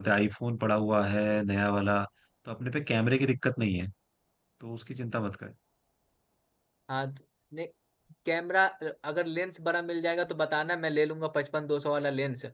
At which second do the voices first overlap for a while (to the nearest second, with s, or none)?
none